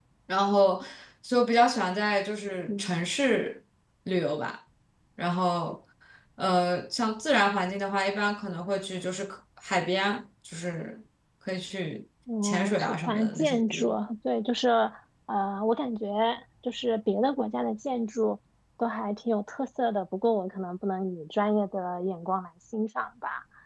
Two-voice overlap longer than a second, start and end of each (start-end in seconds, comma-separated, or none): 12.4-13.9